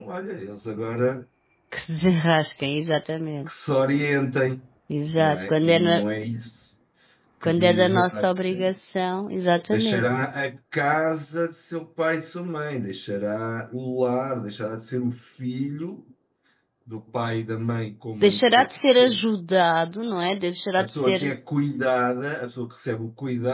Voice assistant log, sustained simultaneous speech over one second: present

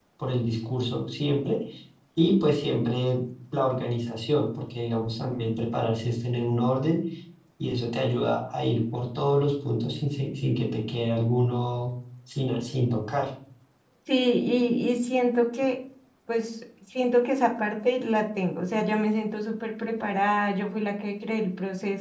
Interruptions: none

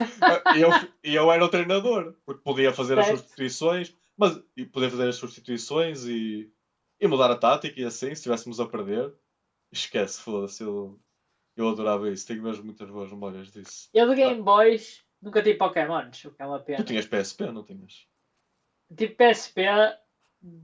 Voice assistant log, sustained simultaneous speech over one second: none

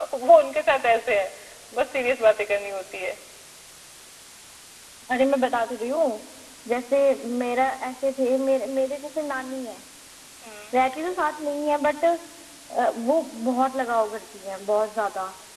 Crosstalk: none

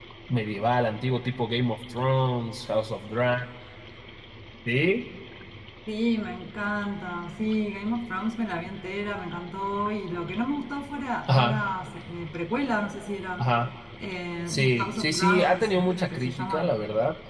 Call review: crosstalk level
present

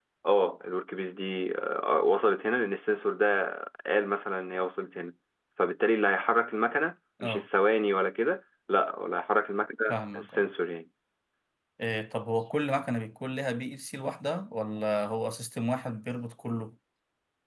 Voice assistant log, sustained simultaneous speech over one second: none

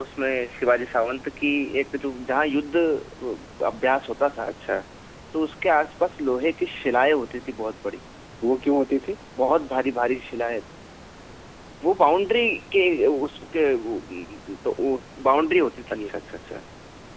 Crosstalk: none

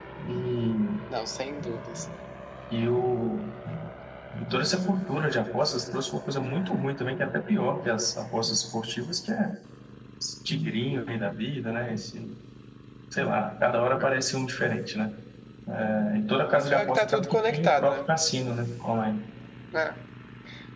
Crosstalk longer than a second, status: present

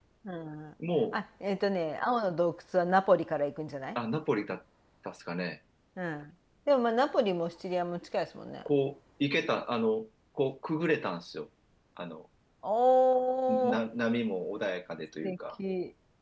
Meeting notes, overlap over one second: none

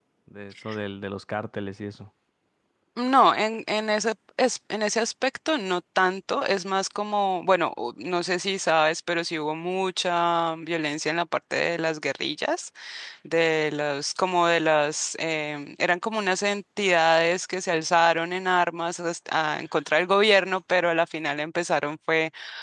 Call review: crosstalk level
none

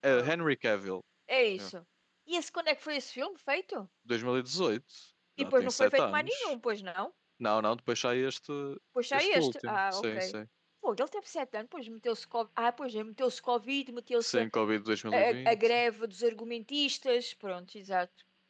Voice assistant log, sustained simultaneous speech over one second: present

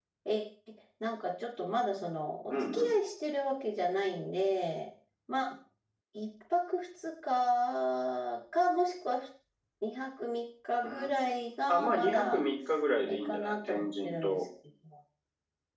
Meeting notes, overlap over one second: present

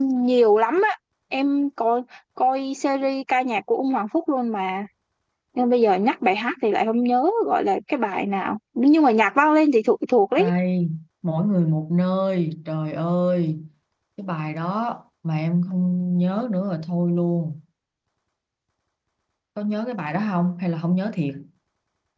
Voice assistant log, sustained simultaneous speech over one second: none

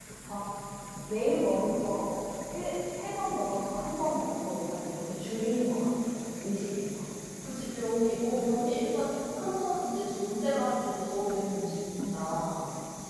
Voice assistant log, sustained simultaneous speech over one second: none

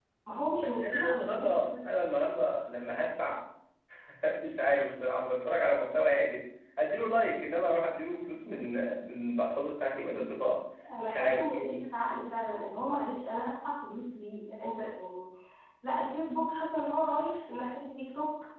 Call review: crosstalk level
present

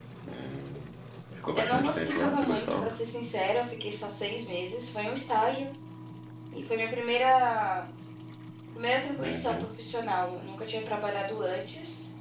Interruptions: present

